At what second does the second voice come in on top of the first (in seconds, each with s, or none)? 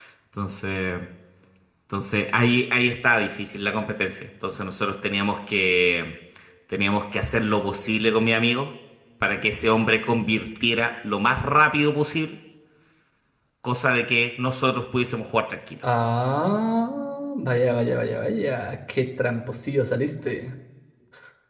none